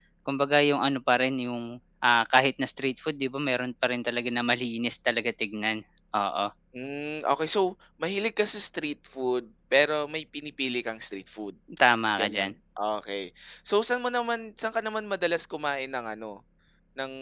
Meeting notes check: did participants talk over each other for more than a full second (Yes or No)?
No